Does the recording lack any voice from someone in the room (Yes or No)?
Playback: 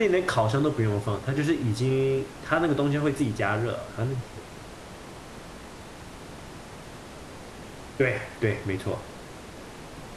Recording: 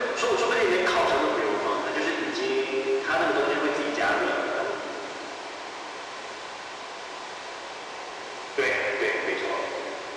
Yes